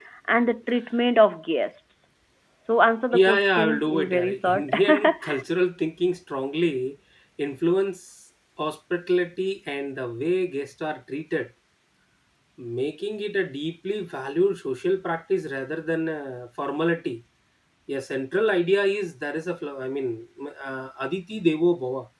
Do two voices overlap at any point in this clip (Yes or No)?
Yes